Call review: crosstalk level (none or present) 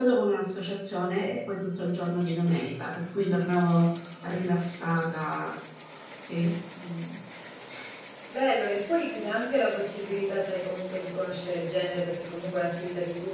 none